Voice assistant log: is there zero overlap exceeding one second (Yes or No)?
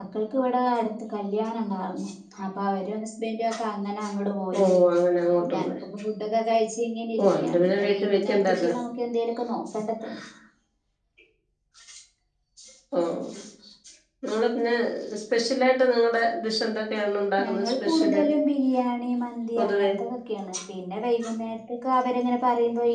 No